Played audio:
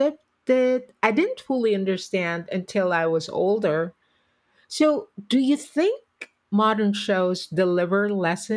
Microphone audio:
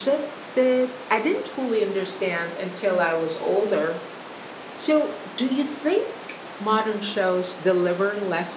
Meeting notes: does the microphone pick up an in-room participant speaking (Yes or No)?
No